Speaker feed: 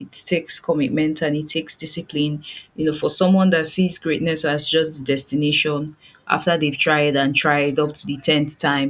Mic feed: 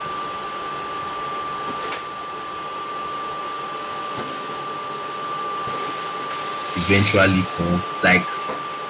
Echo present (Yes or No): No